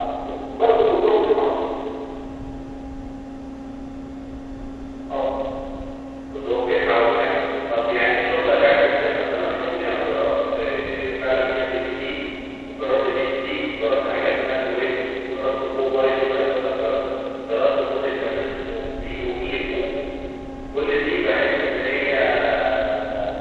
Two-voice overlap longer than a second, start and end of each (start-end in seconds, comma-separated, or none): none